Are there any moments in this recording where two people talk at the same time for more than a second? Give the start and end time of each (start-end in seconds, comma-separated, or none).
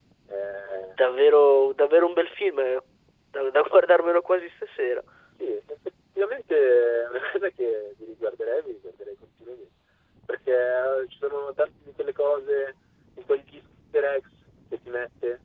none